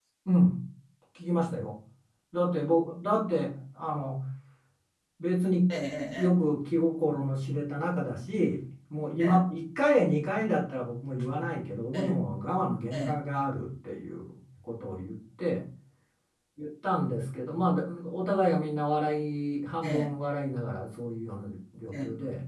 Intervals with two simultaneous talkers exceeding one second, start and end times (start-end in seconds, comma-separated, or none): none